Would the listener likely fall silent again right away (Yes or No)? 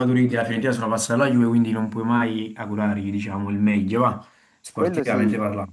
No